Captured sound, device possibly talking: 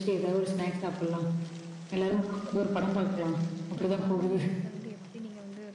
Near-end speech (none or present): present